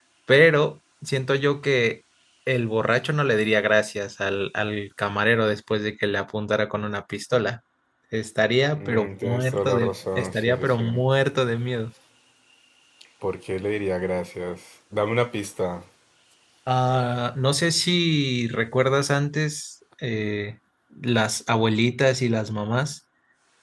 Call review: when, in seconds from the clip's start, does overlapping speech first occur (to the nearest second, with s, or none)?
9 s